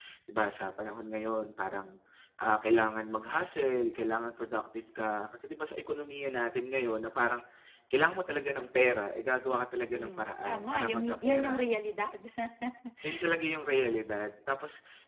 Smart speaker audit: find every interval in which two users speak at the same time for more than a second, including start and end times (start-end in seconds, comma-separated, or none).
9.9-11.6